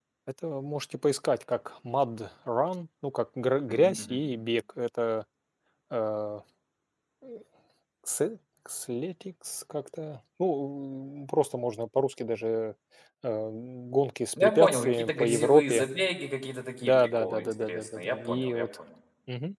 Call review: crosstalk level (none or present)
present